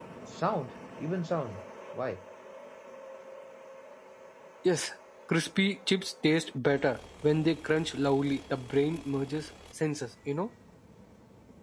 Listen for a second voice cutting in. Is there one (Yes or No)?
No